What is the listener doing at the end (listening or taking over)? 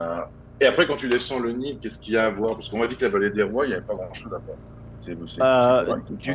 taking over